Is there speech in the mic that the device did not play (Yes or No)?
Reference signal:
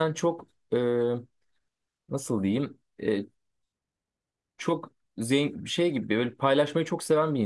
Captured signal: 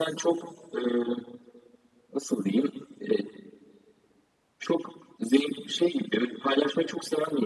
No